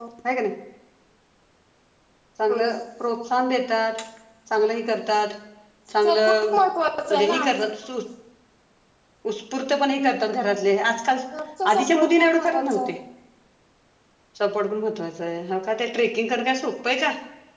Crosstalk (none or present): present